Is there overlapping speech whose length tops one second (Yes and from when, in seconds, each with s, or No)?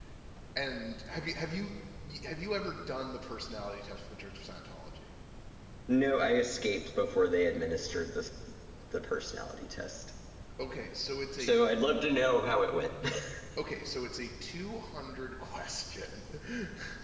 No